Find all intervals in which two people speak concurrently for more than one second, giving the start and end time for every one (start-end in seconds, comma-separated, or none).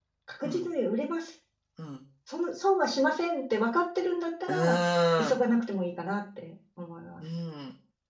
none